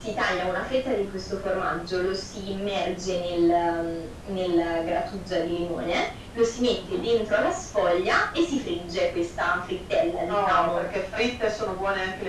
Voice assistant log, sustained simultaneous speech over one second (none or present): none